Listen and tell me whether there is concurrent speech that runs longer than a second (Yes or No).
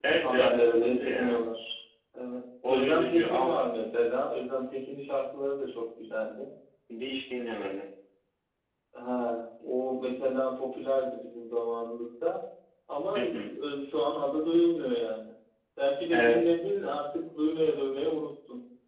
Yes